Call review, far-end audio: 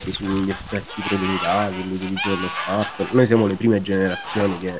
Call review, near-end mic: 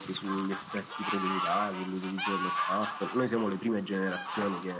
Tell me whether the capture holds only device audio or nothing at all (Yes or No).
Yes